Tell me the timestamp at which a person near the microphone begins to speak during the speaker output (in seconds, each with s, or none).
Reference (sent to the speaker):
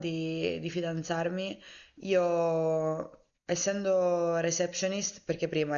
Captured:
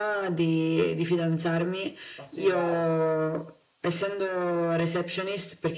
2.1 s